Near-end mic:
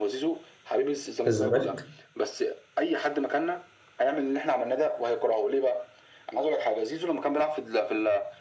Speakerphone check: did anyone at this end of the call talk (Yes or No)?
Yes